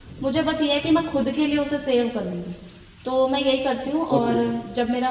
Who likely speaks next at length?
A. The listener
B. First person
B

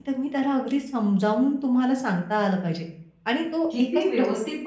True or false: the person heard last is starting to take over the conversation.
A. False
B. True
B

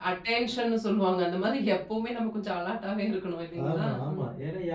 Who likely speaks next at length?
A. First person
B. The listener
B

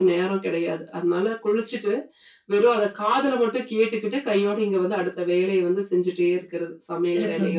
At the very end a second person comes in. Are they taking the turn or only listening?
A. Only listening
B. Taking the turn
B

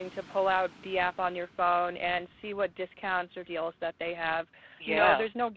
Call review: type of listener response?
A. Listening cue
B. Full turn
A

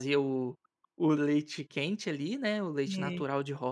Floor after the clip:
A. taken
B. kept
B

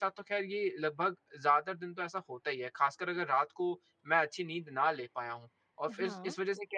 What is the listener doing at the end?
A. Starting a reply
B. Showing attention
B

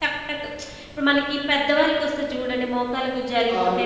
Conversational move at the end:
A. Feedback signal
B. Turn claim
B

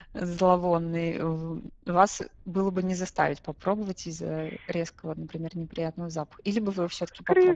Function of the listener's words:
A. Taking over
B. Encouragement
A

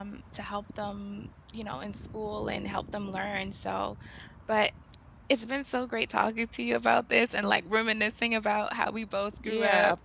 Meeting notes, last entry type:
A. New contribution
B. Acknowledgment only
A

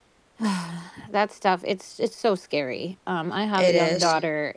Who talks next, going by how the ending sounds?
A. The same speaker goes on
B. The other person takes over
A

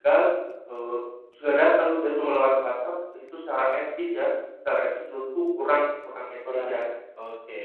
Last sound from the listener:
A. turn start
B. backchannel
A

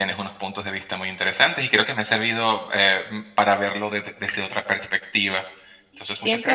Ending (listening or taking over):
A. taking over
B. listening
A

